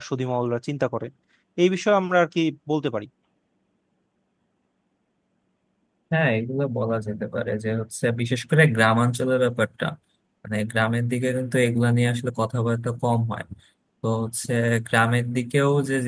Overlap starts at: none

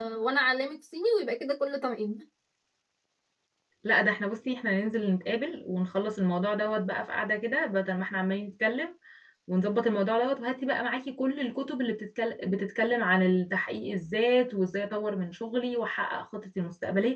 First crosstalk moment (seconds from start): none

